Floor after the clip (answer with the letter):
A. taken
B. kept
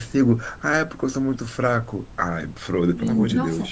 A